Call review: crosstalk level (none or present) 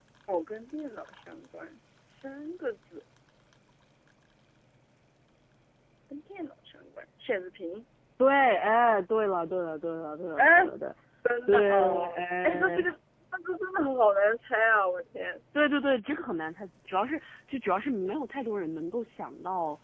present